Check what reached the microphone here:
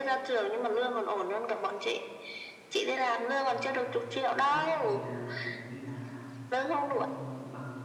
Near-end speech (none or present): present